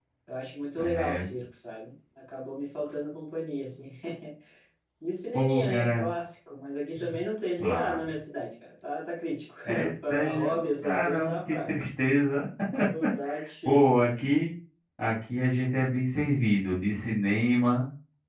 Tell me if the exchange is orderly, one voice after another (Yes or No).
No